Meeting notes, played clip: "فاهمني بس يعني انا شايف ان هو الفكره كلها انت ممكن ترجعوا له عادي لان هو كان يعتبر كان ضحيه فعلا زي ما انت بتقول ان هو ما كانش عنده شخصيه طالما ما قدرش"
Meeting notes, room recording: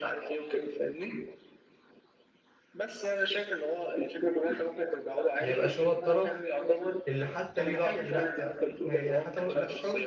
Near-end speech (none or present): present